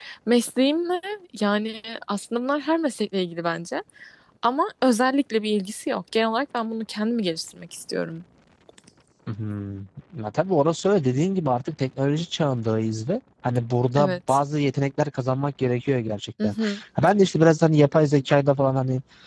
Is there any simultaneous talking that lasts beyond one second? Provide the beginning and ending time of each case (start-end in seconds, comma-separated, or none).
none